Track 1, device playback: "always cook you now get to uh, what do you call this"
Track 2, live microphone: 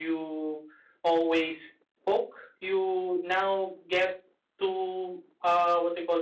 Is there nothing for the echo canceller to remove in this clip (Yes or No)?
No